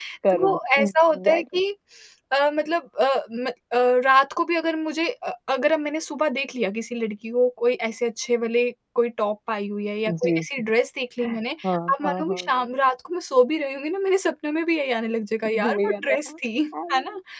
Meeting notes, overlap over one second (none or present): present